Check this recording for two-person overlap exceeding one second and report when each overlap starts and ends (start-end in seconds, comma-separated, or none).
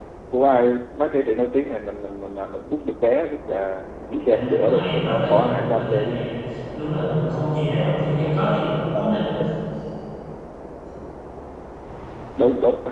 4.3-6.4